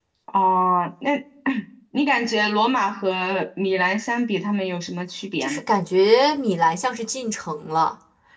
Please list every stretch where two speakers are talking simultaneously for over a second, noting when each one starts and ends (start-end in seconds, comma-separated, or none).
none